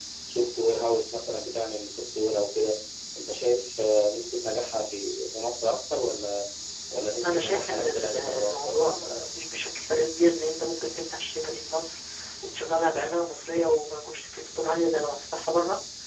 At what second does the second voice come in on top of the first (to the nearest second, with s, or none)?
7 s